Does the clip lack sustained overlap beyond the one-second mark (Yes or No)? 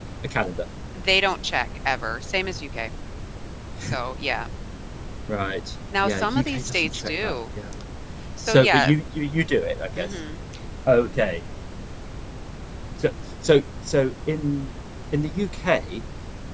No